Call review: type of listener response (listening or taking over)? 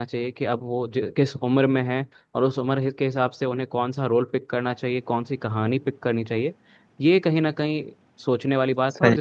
listening